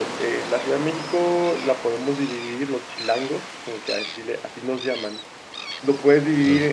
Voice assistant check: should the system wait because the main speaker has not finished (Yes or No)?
Yes